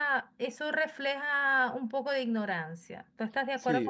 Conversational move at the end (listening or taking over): taking over